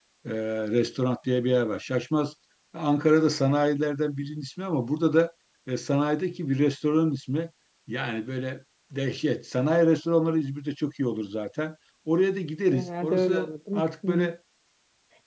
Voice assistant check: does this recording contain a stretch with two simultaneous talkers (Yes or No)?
Yes